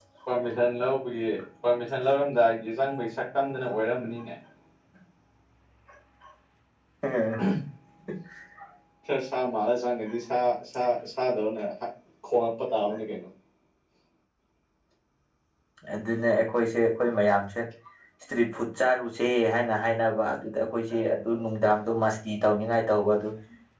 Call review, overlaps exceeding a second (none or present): none